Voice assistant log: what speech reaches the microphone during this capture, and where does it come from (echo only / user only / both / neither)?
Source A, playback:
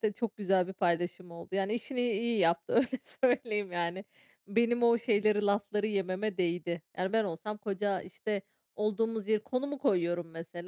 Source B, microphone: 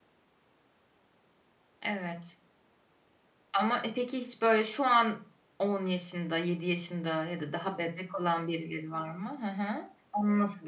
user only